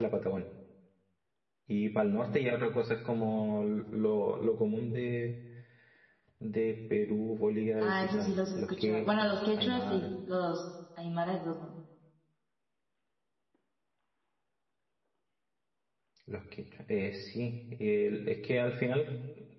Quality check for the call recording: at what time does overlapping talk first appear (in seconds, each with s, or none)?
7.8 s